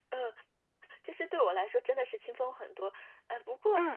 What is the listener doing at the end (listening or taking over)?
listening